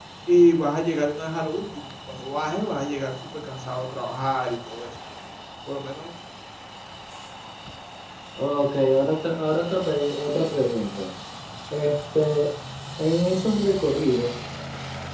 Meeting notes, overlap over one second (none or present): none